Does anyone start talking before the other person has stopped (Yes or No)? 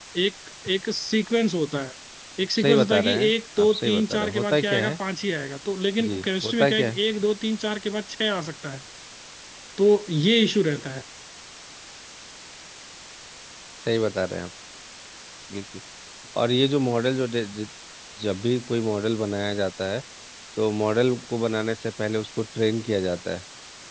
Yes